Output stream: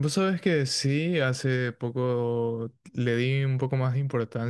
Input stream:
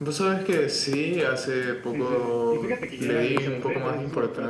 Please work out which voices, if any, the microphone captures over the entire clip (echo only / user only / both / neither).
both